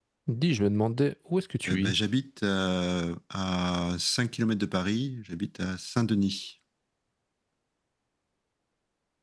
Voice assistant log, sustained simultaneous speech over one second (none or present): none